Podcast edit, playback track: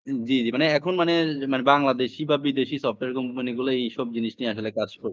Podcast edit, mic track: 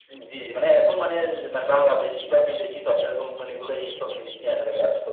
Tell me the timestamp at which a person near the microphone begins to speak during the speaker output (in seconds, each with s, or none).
none